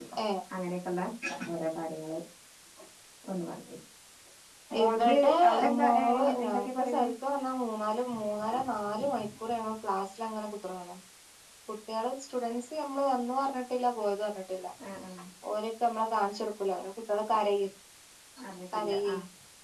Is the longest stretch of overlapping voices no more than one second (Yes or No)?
No